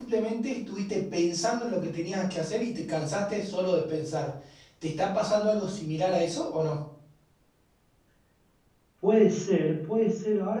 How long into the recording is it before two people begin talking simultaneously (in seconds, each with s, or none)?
none